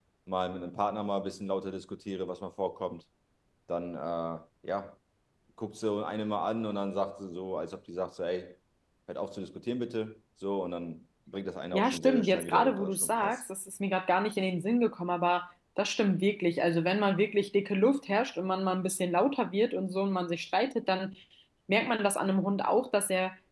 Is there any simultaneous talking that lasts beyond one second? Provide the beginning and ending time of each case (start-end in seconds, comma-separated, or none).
11.7-13.4